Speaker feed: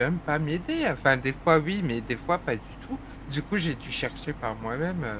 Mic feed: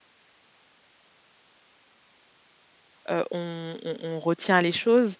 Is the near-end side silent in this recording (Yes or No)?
No